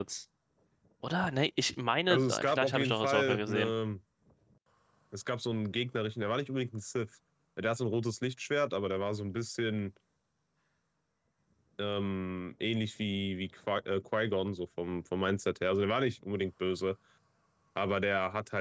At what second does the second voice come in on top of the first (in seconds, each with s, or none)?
2.1 s